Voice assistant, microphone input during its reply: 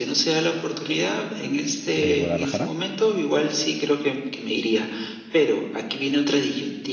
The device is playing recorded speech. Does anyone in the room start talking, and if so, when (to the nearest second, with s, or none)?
2 s